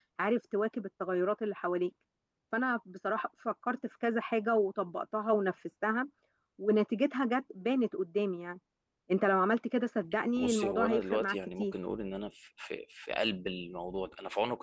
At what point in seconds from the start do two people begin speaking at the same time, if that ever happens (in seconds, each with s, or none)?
10.4 s